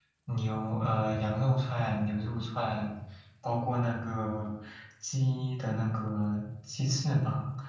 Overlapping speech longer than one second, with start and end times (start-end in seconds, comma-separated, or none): none